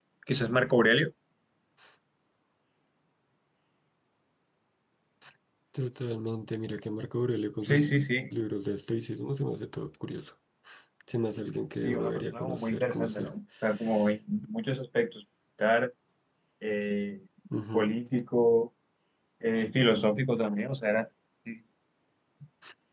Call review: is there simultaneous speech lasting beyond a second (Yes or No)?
Yes